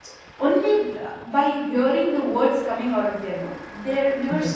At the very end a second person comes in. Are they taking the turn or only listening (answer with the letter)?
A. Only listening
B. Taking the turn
A